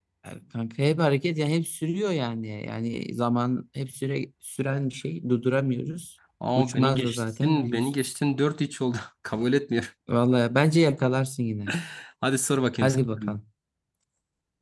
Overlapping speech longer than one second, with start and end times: 6.6-7.9

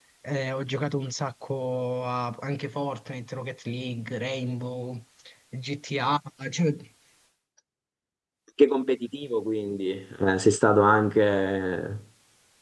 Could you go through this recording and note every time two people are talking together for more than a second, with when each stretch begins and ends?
none

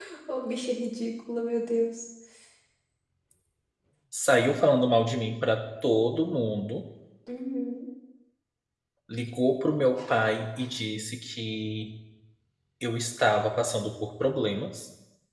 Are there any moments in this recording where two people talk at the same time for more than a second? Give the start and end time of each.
none

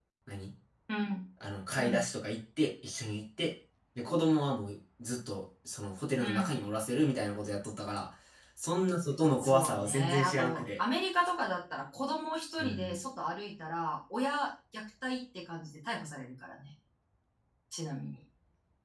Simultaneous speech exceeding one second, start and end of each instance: 9.4-10.8

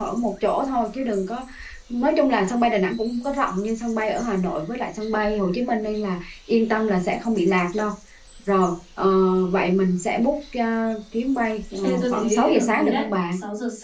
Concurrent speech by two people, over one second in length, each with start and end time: 11.8-13.1

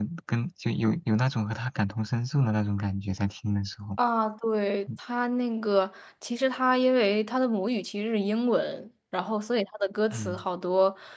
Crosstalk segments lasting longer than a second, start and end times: none

